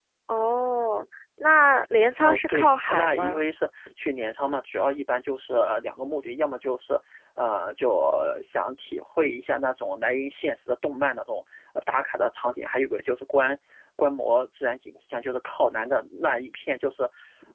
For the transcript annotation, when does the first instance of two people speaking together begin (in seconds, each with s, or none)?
2.2 s